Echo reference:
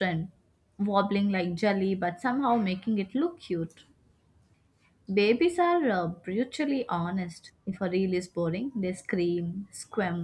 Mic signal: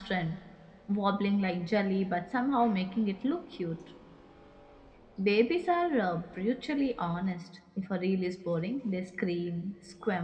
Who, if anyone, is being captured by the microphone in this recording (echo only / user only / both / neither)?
echo only